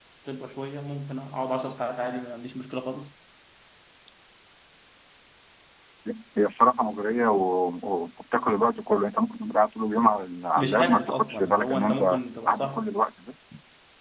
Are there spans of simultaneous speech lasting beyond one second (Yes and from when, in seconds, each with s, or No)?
Yes, from 10.6 s